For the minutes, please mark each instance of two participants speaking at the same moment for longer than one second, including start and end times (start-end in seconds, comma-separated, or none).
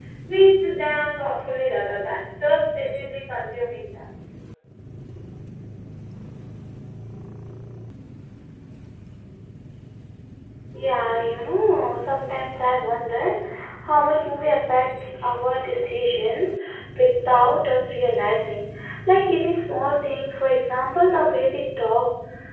none